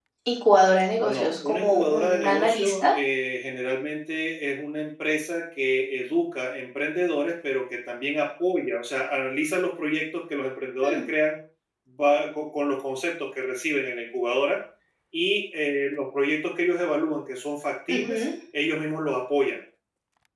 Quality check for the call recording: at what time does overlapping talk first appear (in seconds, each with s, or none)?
1.0 s